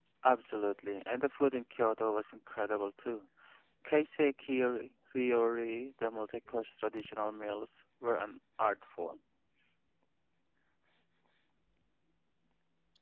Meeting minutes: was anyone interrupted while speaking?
No

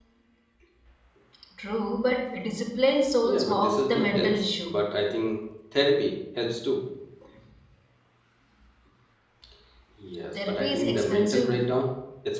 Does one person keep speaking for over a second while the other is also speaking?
Yes, from 3.2 s

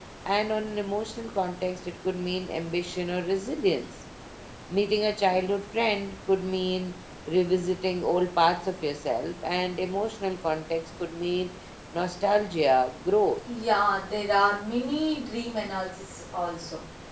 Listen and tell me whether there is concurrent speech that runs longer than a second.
No

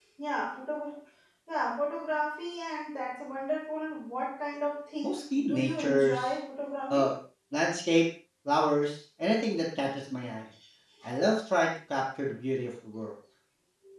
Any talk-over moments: Yes, from 5.0 s

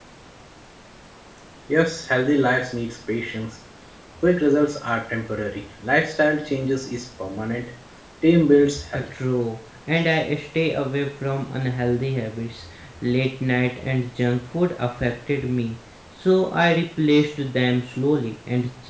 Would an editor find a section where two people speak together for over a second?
No

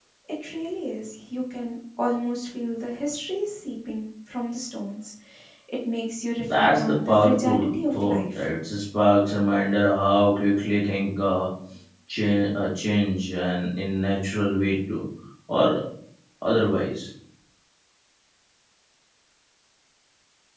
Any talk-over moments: Yes, from 6.4 s

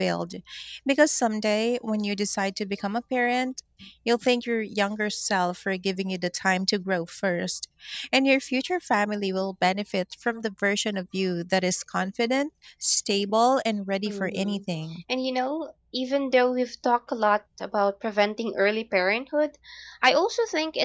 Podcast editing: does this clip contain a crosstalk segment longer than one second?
No

